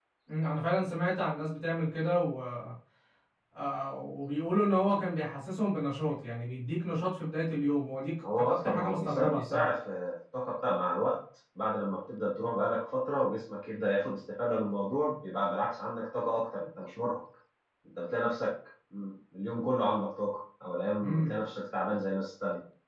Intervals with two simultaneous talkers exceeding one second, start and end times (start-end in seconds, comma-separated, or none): 8.4-9.6